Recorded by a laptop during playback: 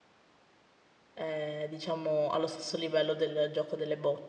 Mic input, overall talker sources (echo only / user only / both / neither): user only